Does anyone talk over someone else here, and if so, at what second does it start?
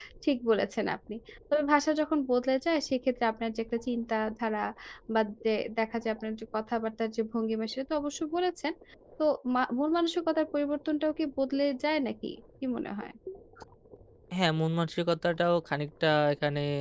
none

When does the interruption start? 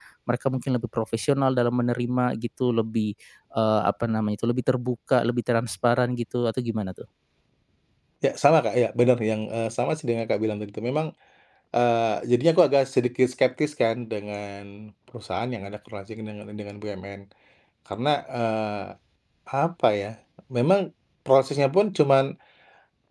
none

